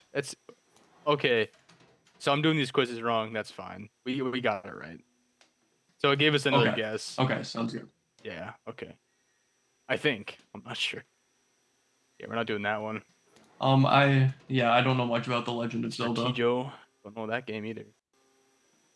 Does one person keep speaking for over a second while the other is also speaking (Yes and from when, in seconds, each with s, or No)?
No